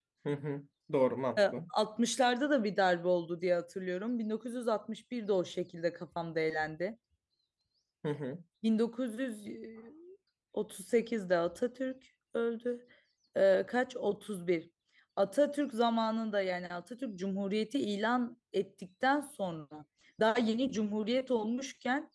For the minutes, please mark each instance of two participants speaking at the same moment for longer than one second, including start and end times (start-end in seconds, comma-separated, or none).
none